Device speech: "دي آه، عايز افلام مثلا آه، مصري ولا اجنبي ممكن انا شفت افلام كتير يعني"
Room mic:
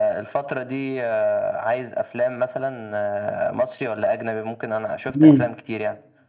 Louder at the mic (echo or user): user